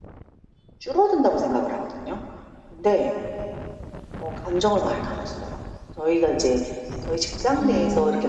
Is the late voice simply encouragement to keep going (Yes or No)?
Yes